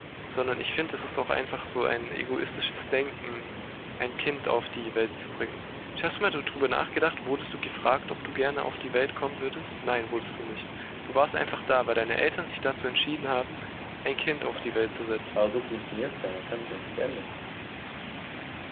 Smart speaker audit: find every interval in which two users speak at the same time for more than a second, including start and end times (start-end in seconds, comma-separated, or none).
none